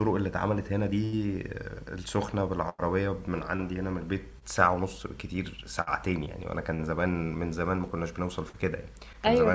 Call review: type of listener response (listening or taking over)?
listening